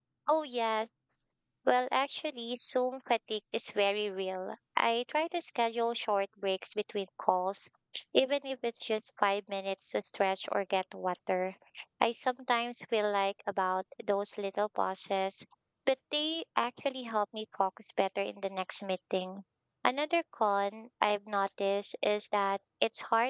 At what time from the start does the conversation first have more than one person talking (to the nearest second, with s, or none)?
none